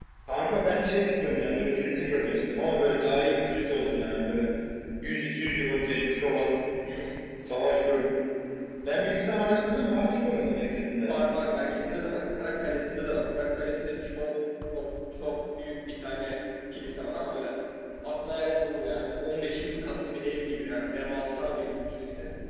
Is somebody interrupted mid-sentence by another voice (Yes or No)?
No